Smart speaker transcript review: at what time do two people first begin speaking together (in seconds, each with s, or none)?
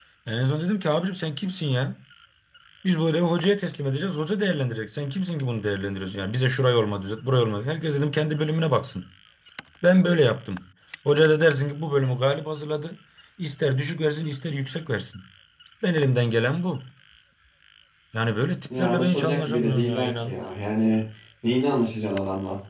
18.8 s